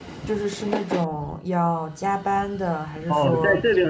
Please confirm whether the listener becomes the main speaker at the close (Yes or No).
Yes